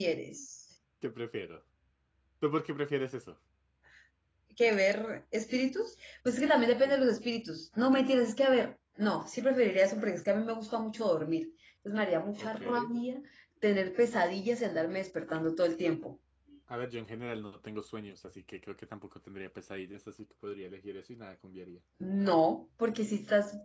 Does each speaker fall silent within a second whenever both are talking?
Yes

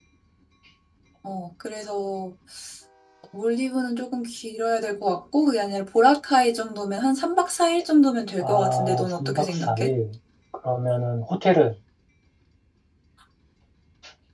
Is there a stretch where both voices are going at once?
Yes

